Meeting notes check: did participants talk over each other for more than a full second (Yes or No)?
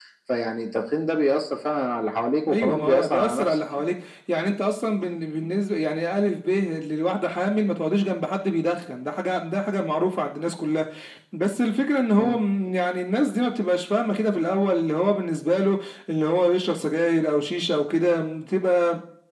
Yes